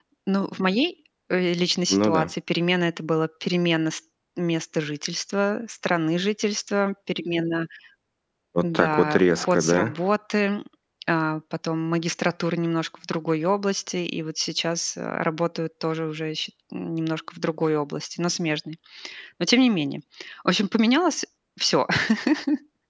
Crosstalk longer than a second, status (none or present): present